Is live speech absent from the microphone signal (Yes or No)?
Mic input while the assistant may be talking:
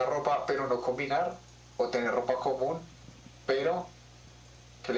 Yes